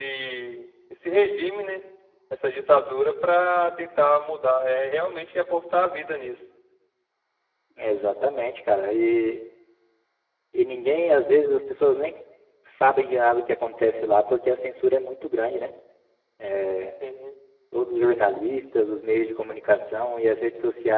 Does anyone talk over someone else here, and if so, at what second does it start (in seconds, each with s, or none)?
none